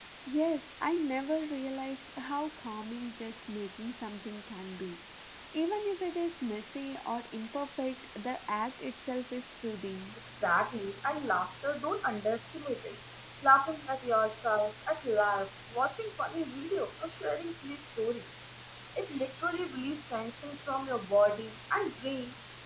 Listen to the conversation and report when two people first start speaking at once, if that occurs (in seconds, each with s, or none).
none